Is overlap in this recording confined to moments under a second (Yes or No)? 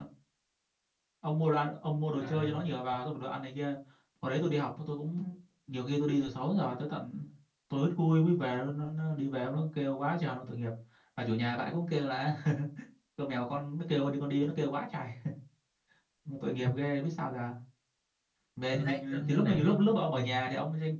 No